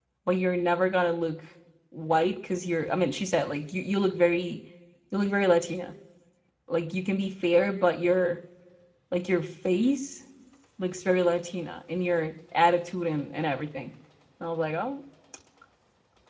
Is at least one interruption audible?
No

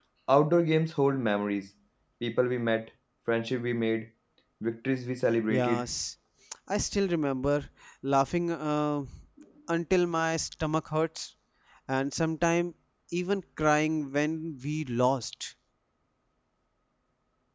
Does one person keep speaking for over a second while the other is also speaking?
No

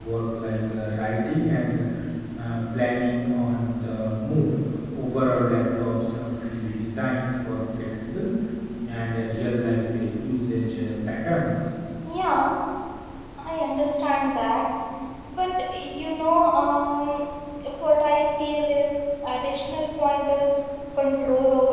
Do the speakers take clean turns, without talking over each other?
Yes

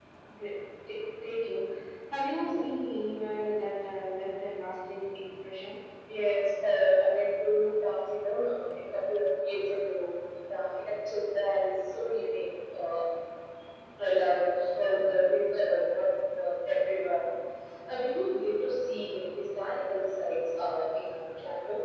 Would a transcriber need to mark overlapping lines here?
No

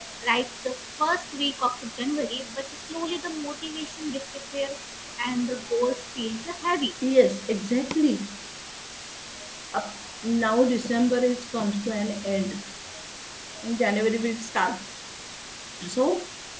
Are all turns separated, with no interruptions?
Yes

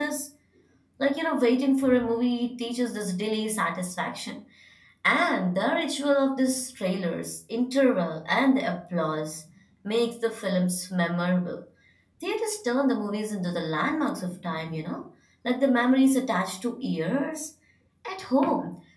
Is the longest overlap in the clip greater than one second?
No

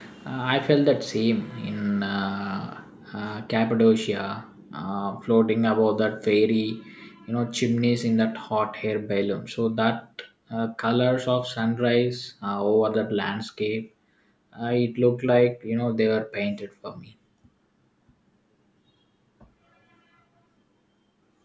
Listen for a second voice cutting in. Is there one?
No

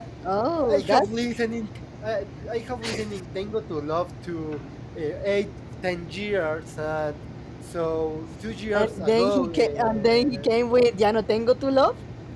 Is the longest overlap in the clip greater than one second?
Yes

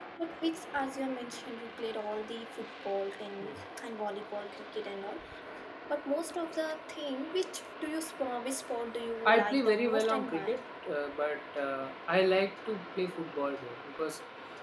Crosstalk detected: Yes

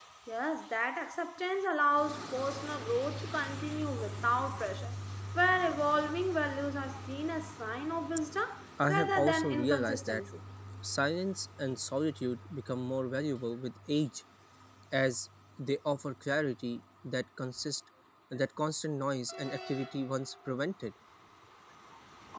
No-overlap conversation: No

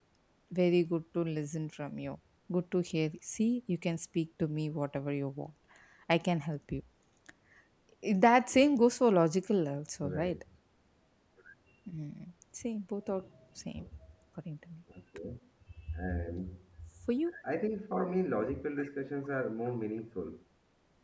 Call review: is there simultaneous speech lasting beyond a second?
No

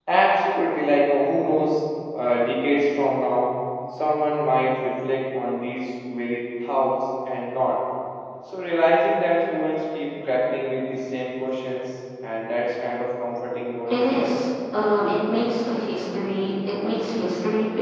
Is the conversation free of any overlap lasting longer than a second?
Yes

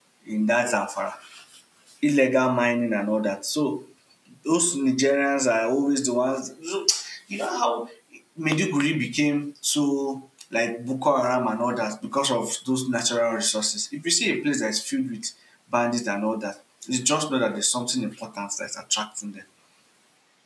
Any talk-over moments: No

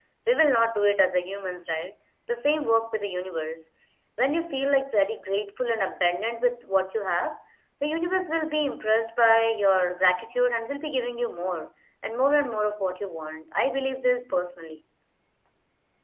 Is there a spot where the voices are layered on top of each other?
No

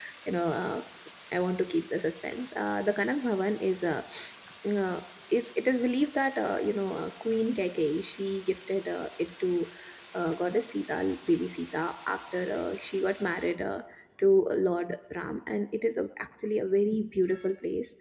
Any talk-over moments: No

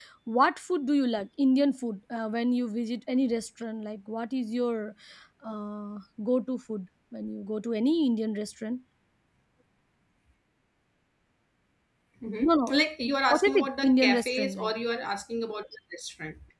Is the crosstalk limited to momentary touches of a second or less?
No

